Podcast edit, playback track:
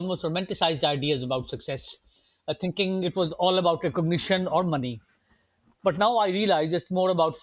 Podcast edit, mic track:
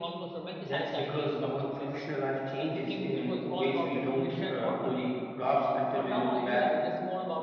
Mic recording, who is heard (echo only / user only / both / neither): both